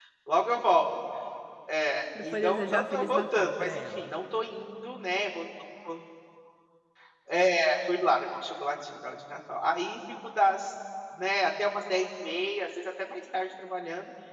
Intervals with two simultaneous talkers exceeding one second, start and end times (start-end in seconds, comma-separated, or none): 2.2-4.1